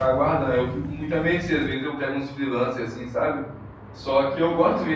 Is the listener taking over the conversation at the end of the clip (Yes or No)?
No